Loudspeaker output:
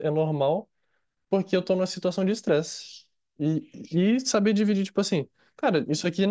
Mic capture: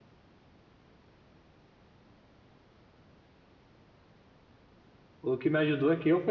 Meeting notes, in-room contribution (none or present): present